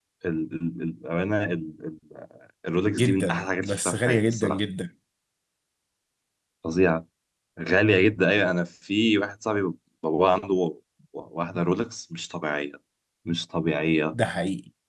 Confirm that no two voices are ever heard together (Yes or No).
No